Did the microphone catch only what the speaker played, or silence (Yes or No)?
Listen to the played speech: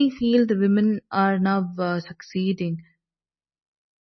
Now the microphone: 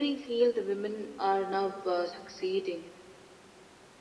Yes